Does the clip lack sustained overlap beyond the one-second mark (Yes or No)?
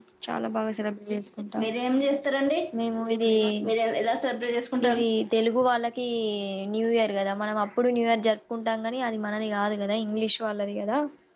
Yes